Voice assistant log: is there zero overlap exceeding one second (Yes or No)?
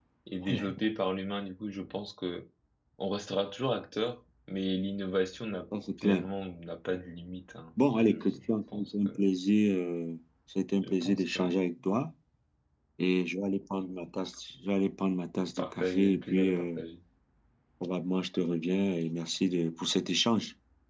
No